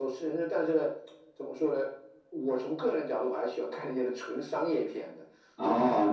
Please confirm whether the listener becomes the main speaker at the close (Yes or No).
Yes